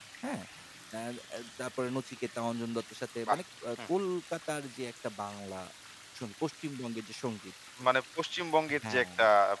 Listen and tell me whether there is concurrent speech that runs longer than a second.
No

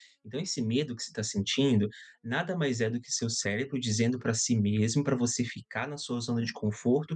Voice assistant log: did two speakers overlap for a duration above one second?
No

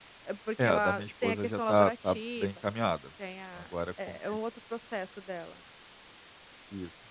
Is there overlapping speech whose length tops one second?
Yes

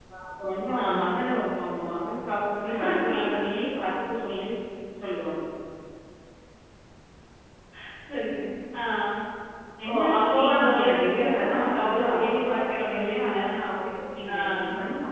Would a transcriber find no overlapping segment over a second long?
No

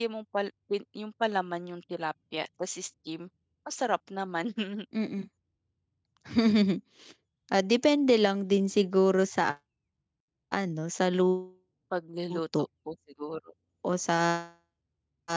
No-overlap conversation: Yes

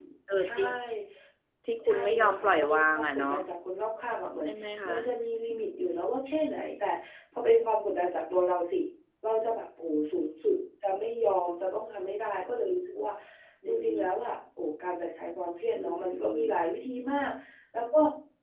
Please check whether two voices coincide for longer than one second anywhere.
Yes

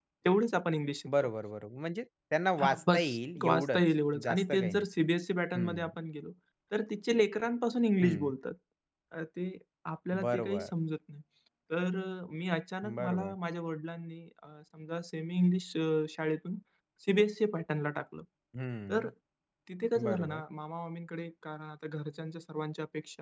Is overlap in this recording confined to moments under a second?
No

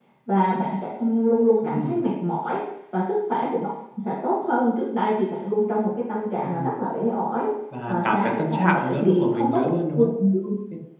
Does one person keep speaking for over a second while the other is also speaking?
Yes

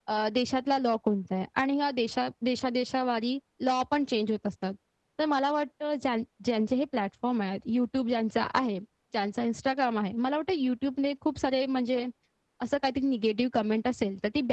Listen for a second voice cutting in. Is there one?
No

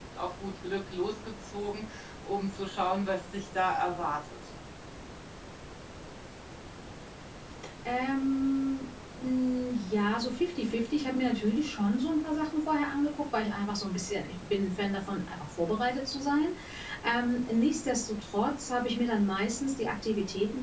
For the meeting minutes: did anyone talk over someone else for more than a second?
No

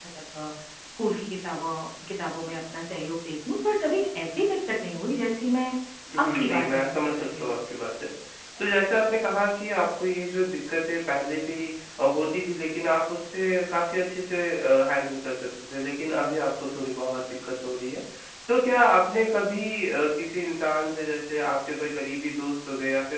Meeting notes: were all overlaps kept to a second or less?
No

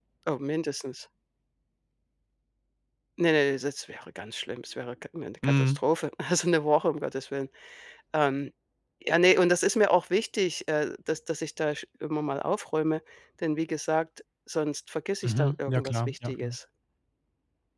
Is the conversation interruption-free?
No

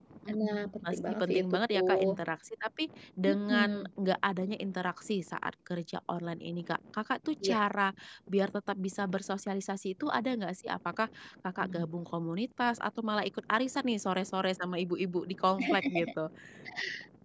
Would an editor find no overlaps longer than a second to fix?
No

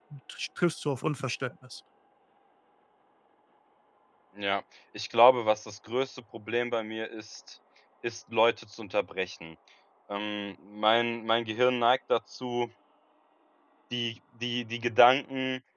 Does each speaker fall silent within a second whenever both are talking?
Yes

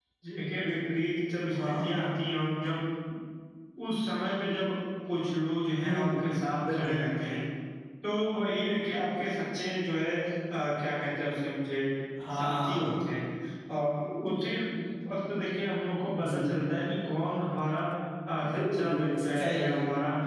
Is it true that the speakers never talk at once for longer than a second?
No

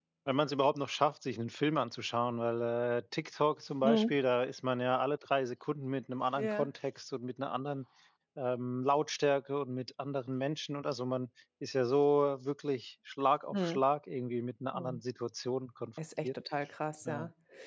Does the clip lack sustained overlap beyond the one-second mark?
Yes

